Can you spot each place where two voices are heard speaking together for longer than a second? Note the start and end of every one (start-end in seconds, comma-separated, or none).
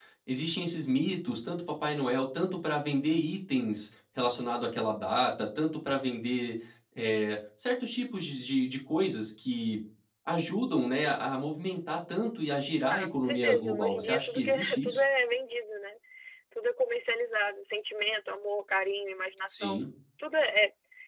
12.9-15.0